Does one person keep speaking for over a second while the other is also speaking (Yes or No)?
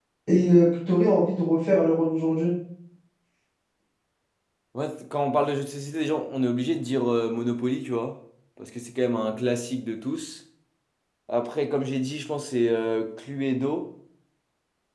No